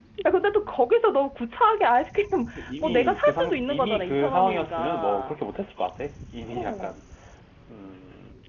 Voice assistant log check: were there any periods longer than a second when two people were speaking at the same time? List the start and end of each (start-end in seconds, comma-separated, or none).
2.8-5.3